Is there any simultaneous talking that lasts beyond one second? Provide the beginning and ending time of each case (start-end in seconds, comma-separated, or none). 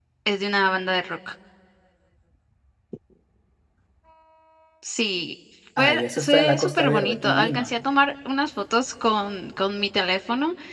5.8-7.7